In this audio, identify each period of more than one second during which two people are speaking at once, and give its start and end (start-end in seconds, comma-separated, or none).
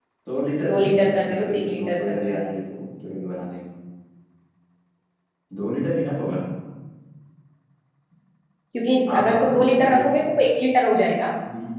0.7-2.5, 9.1-10.3